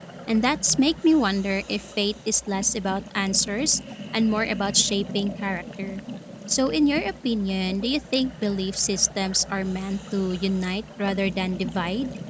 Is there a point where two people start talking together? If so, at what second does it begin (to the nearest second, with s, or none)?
none